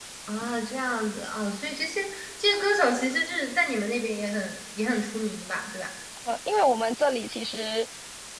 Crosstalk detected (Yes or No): No